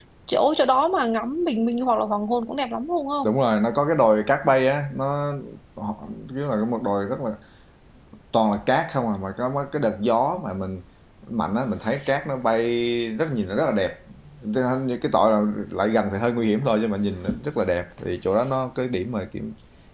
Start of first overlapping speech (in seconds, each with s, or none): none